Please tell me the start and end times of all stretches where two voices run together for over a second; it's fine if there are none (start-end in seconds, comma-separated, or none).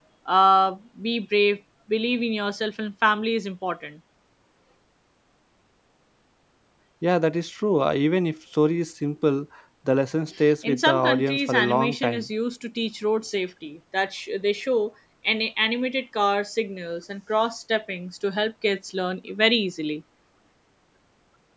10.6-12.3